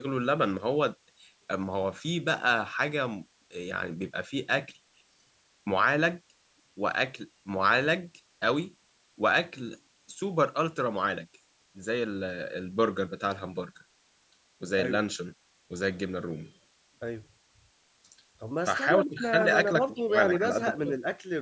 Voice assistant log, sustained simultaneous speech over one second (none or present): present